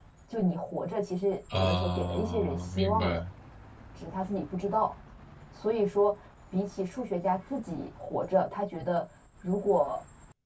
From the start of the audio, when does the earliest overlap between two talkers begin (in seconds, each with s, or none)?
1.5 s